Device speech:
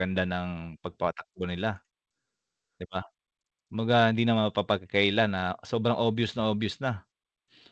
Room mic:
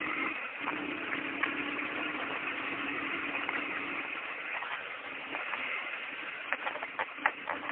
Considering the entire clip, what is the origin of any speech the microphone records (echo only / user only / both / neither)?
neither